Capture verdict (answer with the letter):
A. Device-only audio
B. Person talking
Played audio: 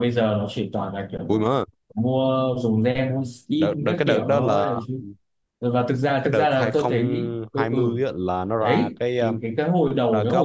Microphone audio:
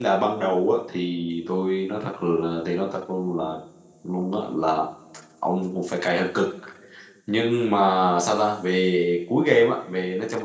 B